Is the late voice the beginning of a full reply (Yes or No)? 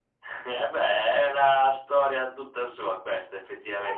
Yes